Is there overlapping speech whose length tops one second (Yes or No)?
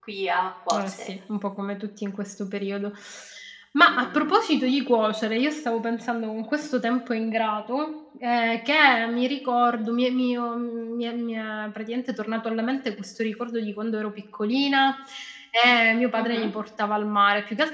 No